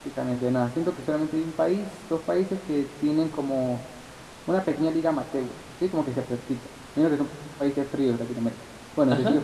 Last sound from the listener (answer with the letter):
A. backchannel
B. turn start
A